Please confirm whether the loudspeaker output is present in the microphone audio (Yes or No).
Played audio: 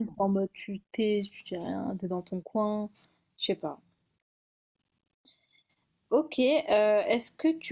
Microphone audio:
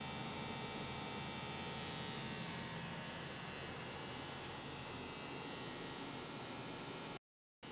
No